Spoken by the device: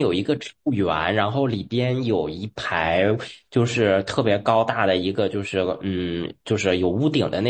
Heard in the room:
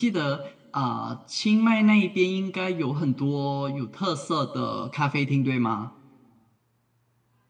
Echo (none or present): none